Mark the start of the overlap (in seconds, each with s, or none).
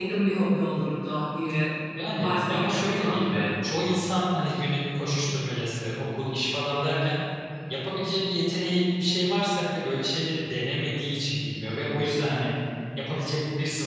2.2 s